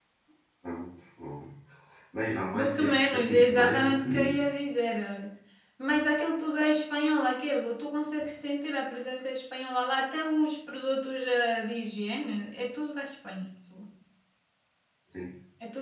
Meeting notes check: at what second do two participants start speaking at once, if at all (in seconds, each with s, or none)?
2.5 s